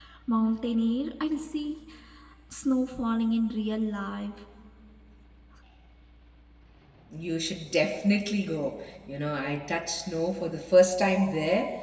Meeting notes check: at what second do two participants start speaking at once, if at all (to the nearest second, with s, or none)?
none